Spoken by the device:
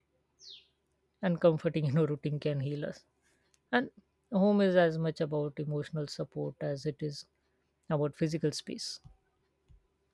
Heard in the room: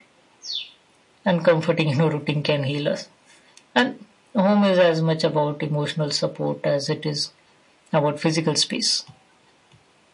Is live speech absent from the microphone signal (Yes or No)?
Yes